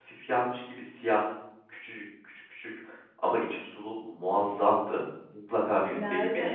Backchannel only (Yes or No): No